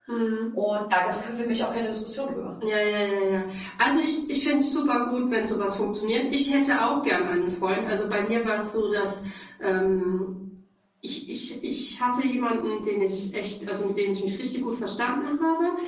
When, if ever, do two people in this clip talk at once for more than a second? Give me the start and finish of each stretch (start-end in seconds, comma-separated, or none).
none